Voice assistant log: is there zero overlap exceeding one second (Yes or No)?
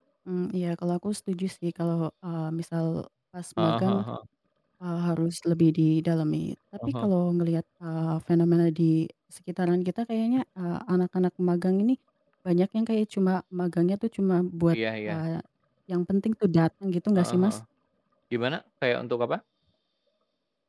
Yes